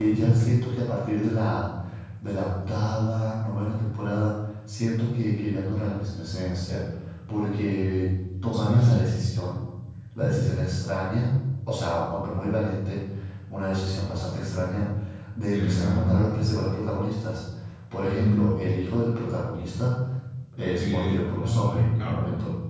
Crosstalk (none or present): present